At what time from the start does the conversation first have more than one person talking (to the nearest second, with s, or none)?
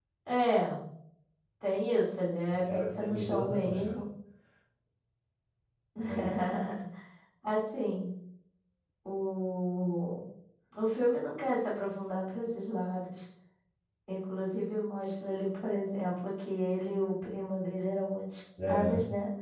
2 s